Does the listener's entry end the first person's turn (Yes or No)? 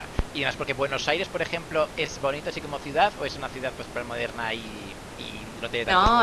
Yes